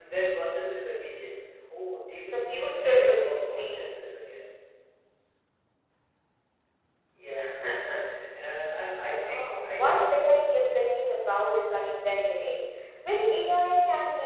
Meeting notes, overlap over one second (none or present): present